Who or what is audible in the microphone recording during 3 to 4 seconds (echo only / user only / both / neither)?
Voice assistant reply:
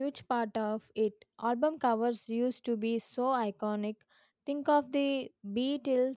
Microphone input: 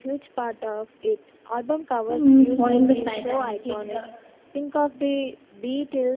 both